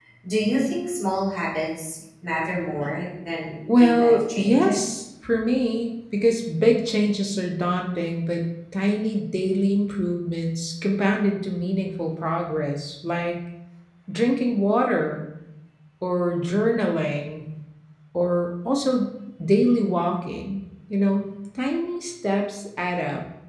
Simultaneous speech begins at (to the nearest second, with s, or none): 4 s